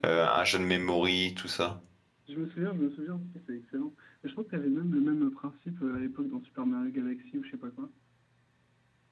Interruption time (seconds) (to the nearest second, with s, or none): none